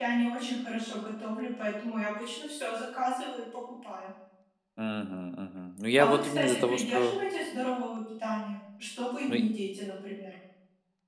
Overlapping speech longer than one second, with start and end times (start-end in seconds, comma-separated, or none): 6.0-7.2